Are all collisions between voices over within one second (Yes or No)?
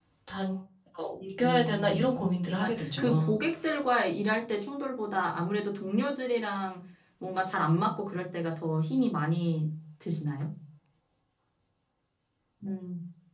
No